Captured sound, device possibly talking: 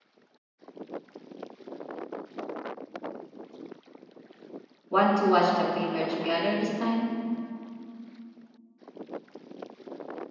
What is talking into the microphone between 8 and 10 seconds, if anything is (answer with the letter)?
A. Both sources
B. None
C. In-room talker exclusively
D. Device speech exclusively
B